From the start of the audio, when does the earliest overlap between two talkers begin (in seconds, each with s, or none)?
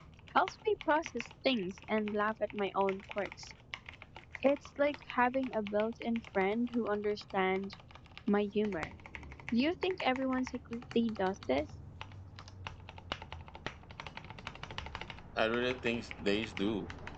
none